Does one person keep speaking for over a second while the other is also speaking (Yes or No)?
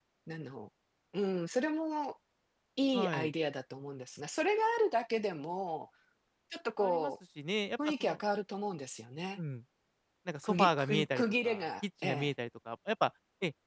Yes